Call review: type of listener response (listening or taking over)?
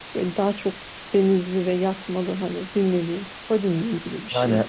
taking over